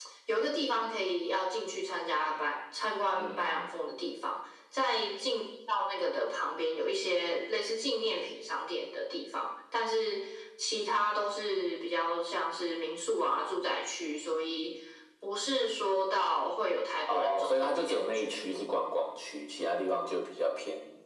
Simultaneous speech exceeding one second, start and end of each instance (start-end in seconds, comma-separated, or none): 17.1-18.4